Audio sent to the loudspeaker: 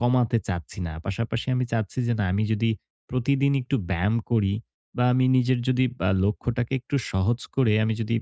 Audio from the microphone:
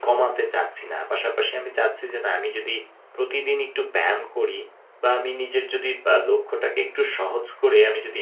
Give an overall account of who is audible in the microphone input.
echo only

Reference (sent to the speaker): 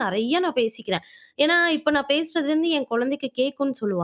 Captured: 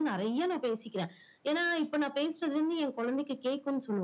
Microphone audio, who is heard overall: echo only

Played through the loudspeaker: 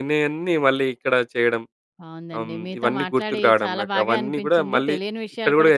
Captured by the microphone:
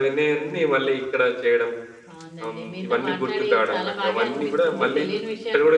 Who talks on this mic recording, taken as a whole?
echo only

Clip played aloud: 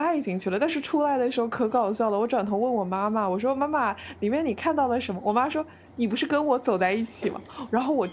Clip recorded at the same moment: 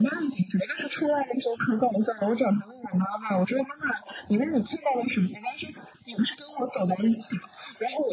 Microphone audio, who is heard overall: echo only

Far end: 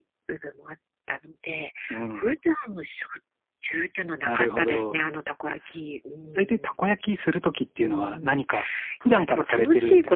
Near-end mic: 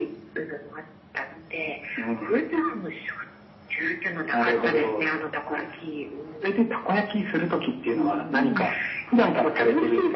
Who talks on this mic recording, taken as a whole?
both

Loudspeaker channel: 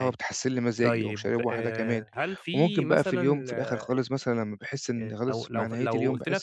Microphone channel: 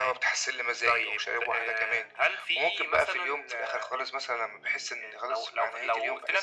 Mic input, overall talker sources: echo only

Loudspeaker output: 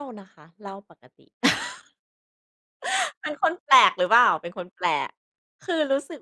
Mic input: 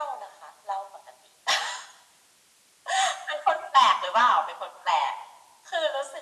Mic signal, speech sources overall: echo only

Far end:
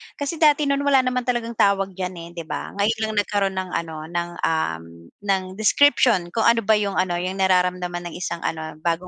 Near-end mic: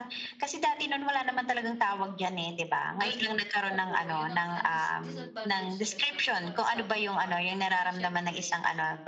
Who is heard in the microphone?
both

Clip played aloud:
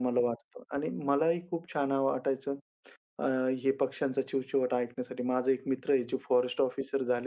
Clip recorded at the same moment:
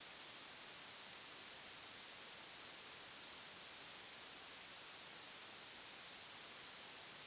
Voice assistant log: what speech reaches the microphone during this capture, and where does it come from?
neither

